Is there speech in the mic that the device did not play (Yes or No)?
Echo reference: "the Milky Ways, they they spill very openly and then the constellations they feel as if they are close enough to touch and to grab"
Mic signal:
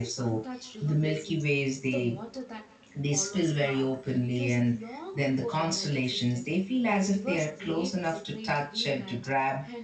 Yes